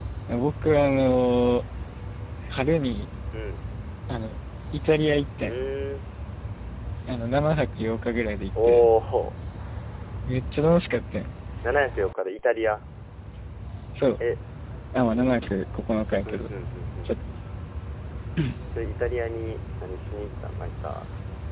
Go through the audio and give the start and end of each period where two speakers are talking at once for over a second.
none

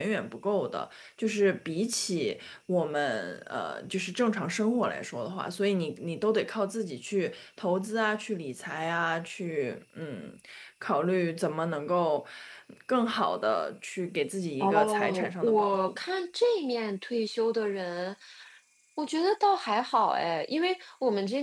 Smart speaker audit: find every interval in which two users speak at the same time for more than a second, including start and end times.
14.6-16.0

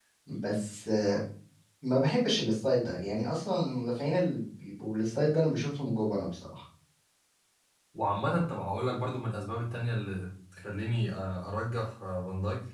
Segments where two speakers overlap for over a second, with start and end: none

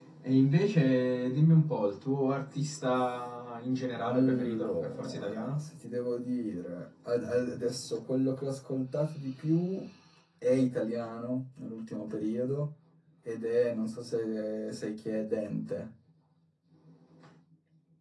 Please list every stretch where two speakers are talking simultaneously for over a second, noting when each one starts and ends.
4.0-5.6

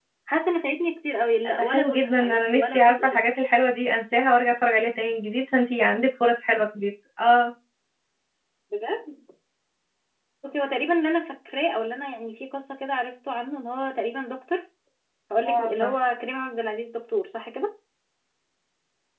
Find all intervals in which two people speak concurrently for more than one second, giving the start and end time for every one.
1.4-3.2

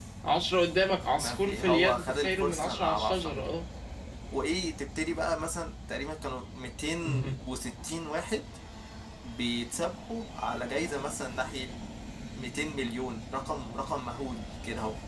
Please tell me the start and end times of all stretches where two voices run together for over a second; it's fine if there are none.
1.1-3.5

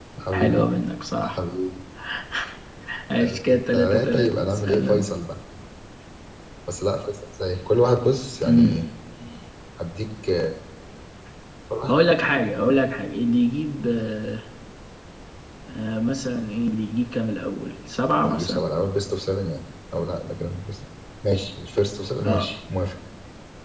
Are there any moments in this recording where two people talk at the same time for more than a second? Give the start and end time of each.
3.2-5.0

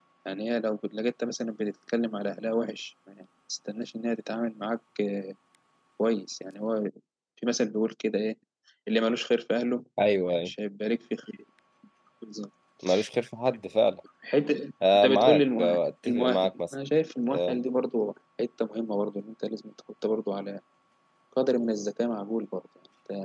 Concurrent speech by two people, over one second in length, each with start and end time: 14.9-16.7

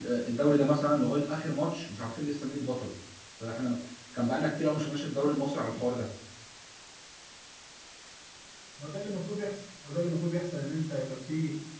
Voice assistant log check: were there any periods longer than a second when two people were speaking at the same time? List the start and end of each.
none

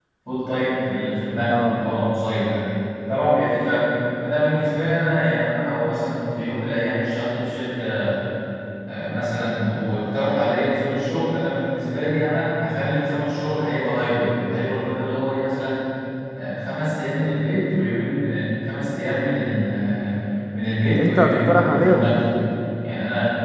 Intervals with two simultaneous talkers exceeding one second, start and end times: 21.0-22.2

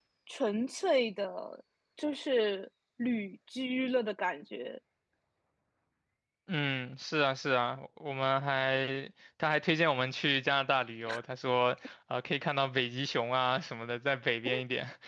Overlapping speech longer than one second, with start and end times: none

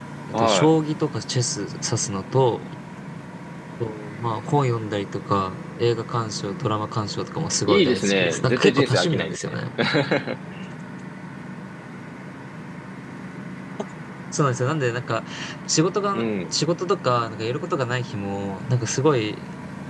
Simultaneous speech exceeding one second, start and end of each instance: 7.7-9.5

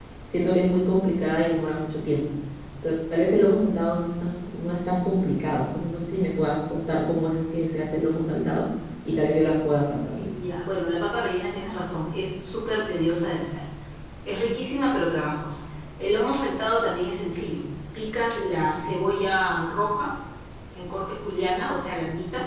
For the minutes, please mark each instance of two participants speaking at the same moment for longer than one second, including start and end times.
none

